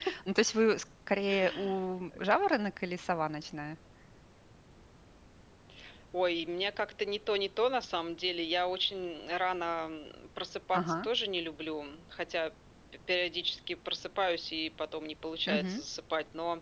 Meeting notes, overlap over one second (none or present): none